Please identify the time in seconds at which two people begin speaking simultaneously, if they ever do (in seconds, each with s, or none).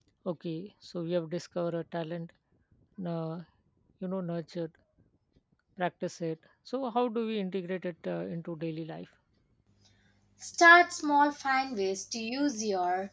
none